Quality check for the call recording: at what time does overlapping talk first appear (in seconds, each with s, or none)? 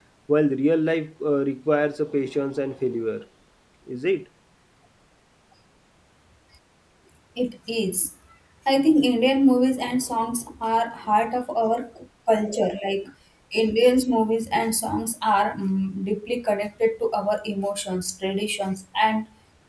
none